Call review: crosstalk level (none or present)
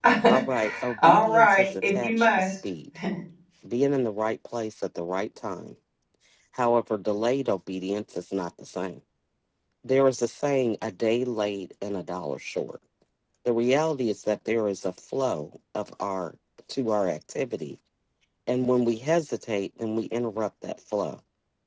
present